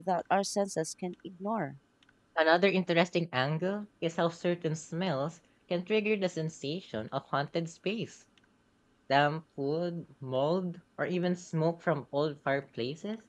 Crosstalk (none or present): none